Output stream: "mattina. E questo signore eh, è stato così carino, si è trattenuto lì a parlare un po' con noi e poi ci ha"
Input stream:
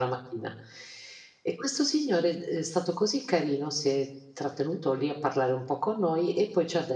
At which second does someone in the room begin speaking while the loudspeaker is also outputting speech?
none

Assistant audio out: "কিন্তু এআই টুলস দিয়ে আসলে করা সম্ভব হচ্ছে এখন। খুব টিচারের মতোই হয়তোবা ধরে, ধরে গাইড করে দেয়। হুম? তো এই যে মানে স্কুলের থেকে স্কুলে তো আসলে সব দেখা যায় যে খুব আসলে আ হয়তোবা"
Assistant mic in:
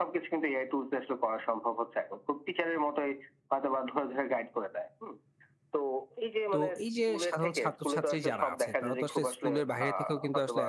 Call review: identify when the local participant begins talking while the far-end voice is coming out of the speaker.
6.5 s

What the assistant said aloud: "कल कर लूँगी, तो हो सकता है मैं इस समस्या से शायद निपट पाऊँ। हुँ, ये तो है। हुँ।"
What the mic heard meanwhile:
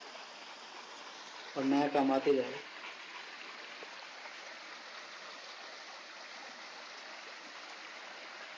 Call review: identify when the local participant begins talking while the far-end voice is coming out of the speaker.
1.6 s

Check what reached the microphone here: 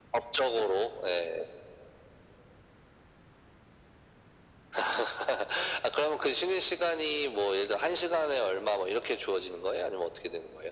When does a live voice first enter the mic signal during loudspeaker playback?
none

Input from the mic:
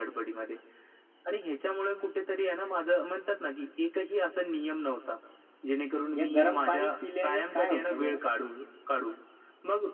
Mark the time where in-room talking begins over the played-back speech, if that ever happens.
6.2 s

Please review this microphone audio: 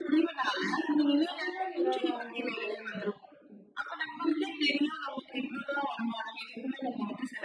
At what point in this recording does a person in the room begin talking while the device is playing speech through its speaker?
1.3 s

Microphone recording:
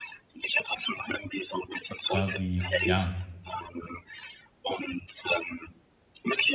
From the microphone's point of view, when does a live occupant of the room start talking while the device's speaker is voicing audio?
2.0 s

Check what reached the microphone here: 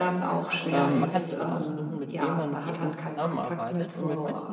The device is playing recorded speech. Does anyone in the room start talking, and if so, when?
0.7 s

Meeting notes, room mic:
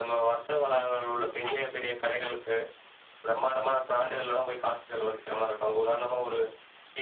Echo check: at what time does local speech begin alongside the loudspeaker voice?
1.1 s

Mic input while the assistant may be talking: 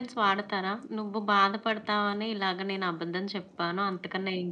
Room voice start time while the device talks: none

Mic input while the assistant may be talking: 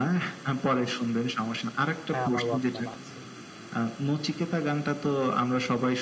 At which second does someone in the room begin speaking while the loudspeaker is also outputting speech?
2.1 s

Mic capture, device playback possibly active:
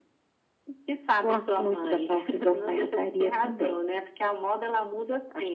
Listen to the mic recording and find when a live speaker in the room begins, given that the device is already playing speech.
none

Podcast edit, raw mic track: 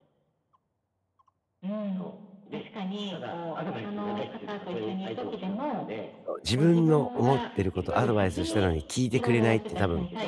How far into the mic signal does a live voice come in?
6.2 s

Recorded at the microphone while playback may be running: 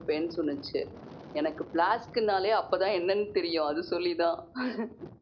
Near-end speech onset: none

